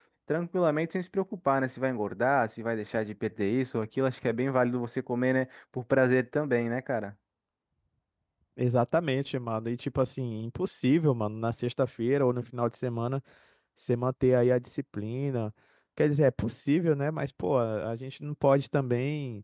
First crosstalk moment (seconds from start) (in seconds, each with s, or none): none